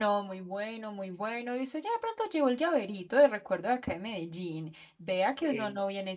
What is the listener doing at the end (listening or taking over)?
listening